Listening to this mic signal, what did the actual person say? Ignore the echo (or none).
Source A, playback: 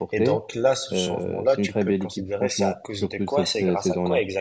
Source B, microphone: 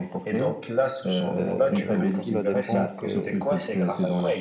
Euh, aussi, la défense, euh,